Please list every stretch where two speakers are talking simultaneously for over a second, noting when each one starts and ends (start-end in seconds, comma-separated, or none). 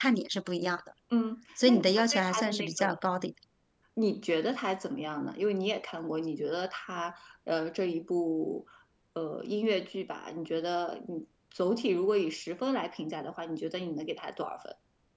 1.6-2.9